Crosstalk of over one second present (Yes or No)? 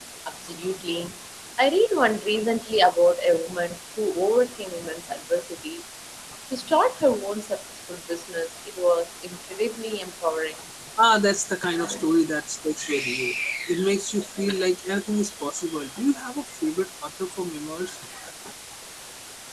No